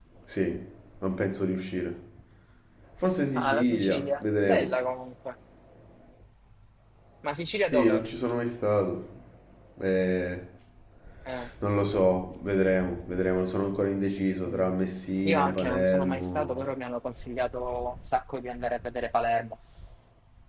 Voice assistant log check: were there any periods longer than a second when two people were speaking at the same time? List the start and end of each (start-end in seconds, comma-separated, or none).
3.3-4.8, 15.2-16.6